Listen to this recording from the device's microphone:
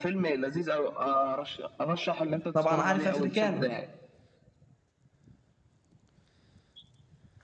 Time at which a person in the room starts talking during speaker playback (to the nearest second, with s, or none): 3 s